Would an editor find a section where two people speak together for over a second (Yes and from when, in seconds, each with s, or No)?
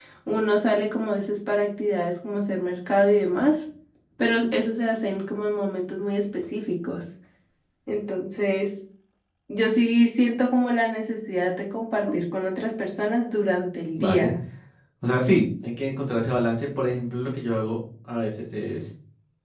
No